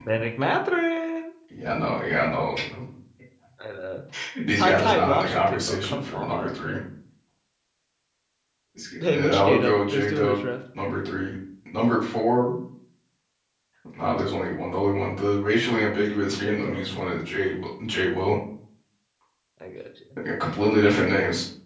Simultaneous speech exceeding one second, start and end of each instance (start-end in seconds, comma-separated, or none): 4.6-6.8, 9.1-10.4